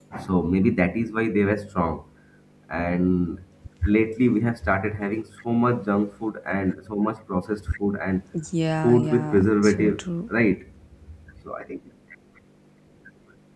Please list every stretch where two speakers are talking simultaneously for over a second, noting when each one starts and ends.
8.8-10.0

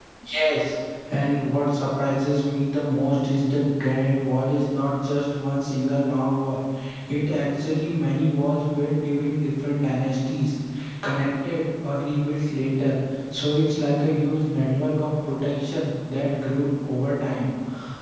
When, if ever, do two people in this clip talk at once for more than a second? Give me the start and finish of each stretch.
none

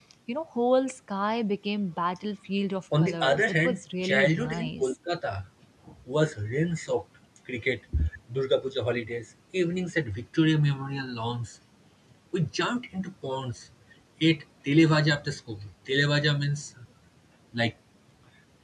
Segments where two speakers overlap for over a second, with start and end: 3.0-4.9

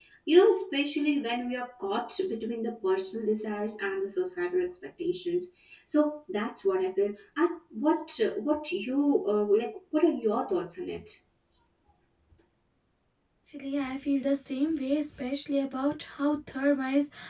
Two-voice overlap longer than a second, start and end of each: none

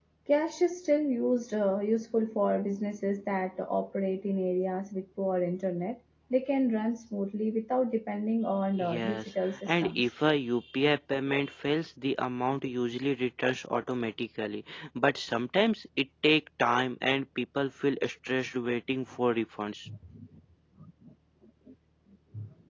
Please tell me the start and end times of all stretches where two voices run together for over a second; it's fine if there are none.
8.8-10.0

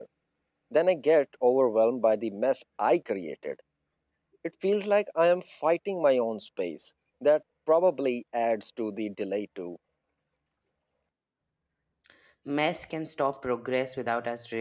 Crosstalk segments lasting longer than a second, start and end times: none

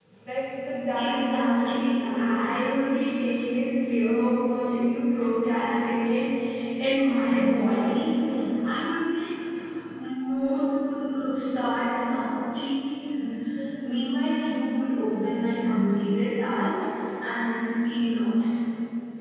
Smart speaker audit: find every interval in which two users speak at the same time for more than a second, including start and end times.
0.9-2.3

